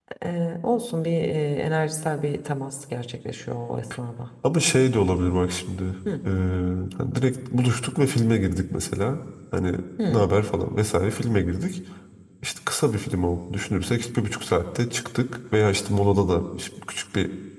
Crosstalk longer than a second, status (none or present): none